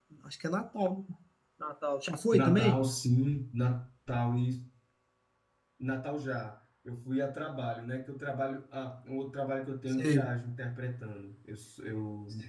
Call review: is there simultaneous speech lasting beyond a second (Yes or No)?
No